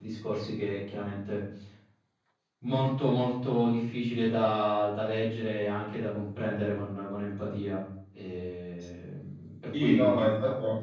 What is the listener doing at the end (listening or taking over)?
taking over